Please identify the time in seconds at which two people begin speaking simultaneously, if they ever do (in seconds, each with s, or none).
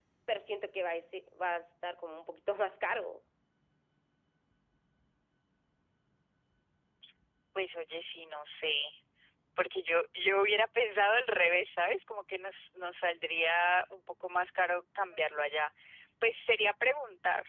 none